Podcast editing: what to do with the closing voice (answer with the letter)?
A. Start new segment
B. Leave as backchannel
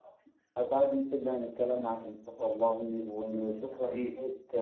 B